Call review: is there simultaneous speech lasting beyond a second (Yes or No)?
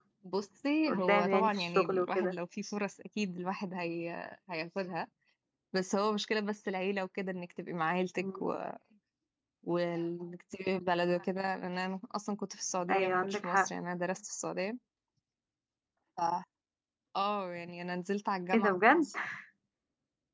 Yes